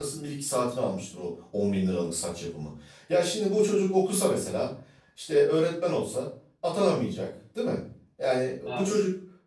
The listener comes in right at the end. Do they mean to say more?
No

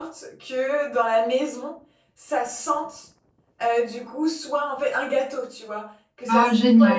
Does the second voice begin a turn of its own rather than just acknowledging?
No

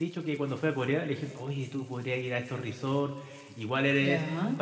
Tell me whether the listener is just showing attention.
Yes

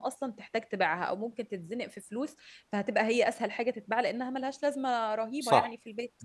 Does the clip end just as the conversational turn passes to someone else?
Yes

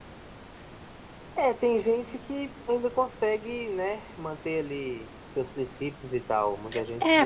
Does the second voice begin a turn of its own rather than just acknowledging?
Yes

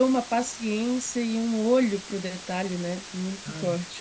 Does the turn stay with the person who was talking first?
No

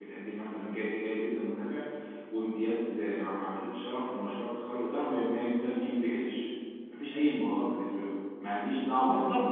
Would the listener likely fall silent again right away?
No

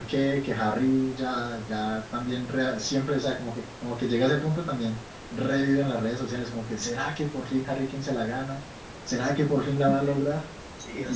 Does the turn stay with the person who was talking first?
No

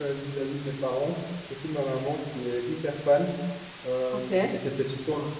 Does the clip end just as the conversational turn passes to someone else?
No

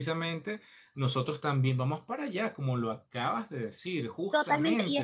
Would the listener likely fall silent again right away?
No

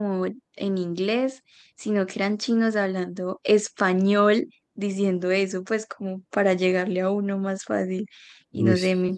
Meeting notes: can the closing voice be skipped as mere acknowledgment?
Yes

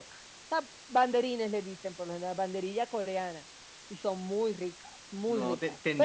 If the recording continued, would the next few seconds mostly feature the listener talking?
Yes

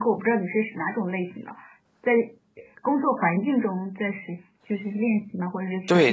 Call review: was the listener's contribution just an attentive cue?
No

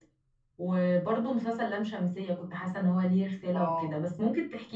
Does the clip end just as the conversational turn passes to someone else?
No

